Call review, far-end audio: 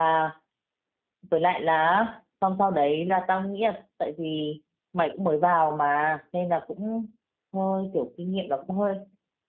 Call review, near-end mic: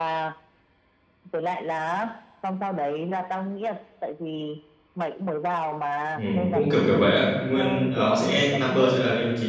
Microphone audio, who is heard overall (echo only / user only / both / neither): both